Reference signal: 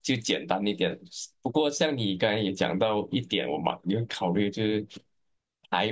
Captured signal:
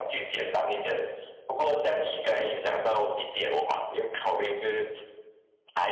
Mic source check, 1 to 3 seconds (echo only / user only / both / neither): echo only